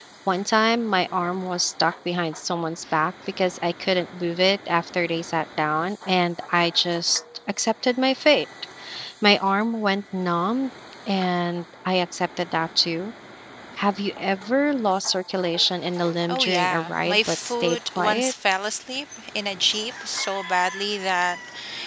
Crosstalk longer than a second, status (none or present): present